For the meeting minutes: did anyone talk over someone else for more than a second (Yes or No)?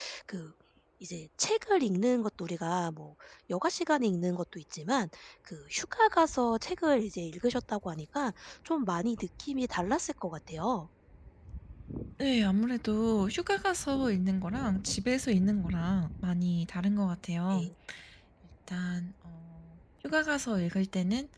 No